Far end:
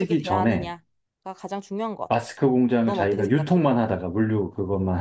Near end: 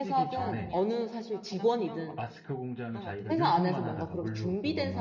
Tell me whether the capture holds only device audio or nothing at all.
No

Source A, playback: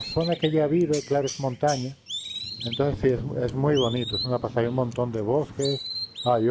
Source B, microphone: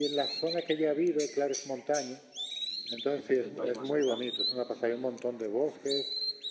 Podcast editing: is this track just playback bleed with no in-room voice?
No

